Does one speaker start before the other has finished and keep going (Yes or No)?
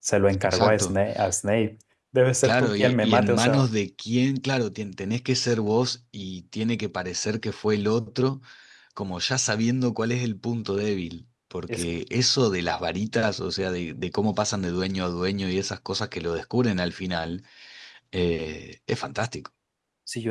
Yes